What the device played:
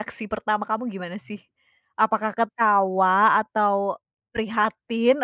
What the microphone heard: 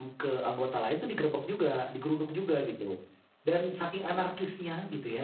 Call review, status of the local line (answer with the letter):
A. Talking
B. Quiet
A